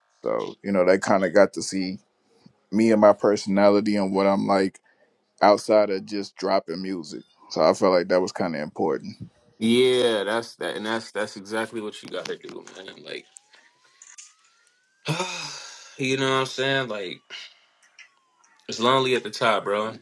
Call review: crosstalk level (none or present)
none